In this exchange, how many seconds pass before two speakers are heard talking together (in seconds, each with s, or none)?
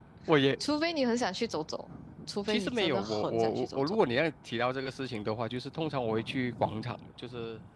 2.5 s